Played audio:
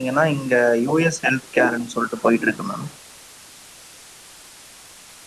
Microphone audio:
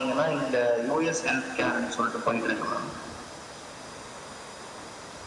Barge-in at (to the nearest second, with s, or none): none